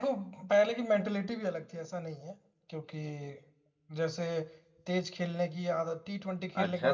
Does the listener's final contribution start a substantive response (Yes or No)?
Yes